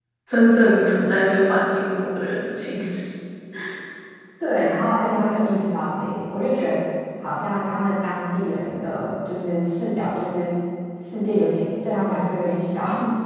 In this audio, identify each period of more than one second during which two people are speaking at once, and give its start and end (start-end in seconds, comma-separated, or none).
none